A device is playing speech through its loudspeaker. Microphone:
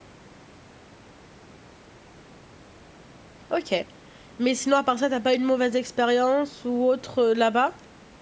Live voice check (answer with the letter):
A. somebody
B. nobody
A